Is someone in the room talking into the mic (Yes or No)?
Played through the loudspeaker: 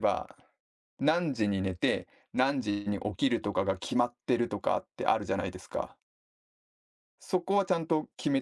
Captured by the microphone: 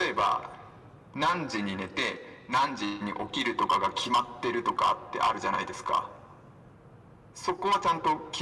No